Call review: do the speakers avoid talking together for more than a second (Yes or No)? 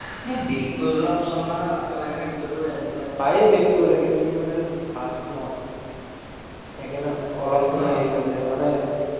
Yes